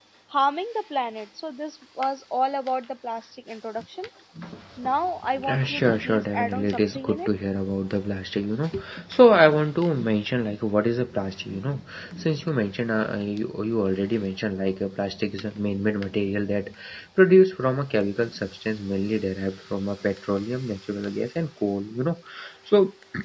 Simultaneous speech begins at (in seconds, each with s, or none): 5.5 s